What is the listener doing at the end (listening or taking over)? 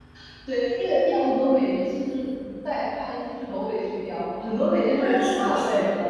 taking over